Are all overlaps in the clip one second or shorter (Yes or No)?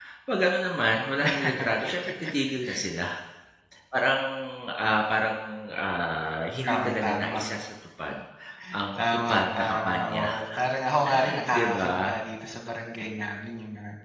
No